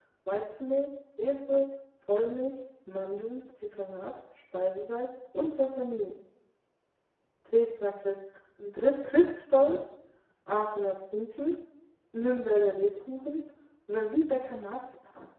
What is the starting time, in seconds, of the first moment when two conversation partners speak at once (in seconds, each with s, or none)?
none